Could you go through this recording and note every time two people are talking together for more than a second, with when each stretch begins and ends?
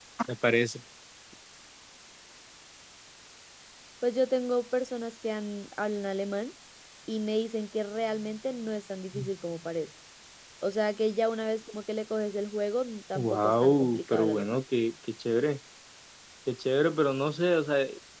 13.2-14.6

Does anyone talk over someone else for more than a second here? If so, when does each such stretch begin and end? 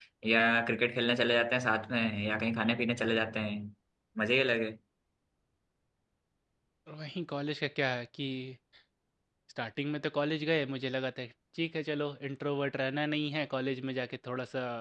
none

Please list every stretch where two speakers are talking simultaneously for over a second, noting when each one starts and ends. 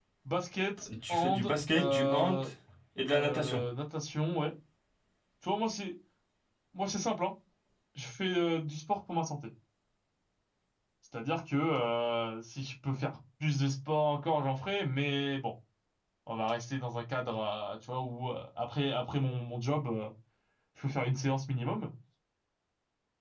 1.1-2.4

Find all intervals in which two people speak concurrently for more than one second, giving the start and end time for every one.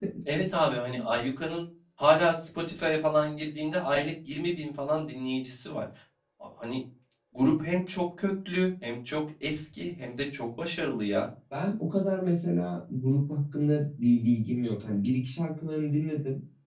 none

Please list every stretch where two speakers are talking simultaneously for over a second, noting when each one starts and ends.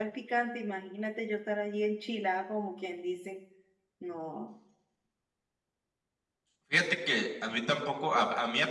none

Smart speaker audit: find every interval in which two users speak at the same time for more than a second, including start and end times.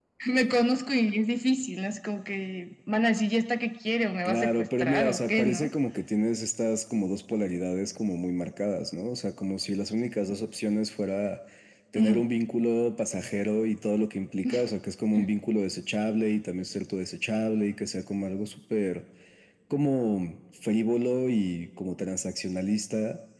4.2-5.7

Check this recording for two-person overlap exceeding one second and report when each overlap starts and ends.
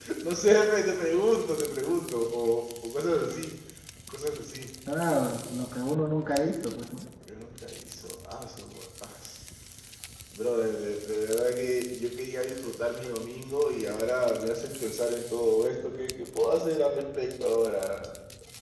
none

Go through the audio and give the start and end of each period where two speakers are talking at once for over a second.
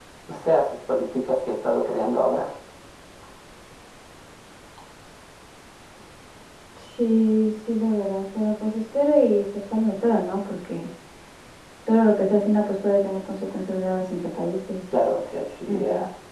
none

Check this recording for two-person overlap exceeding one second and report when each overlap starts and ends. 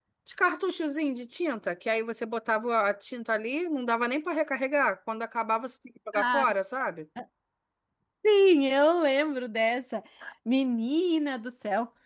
none

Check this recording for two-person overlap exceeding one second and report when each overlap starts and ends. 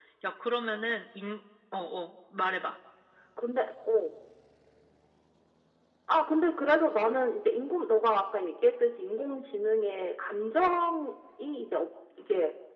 none

